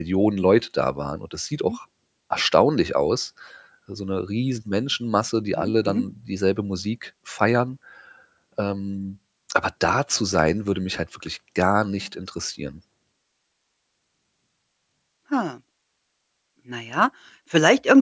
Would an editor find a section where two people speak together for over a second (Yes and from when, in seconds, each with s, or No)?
No